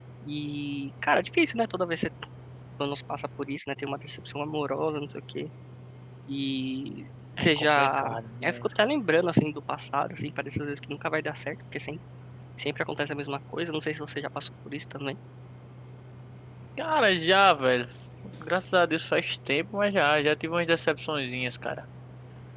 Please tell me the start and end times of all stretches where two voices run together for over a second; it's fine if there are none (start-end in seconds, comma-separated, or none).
7.4-8.6